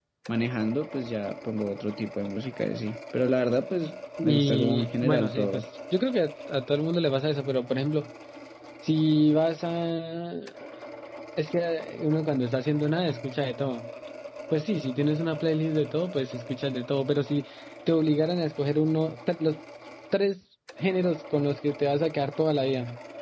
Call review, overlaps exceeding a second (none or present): present